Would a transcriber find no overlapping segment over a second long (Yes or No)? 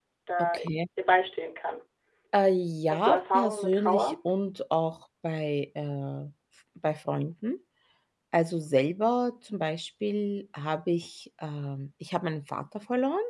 No